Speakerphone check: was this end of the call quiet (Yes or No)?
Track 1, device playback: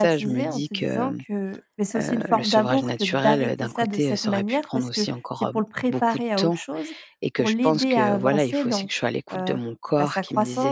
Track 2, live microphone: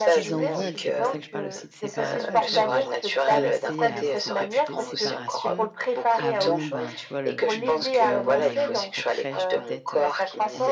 No